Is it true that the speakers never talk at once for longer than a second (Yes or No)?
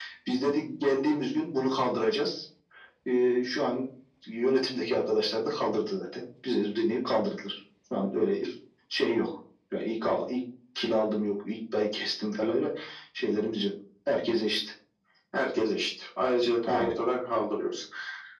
Yes